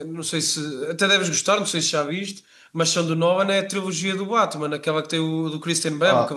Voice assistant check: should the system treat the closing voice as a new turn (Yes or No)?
Yes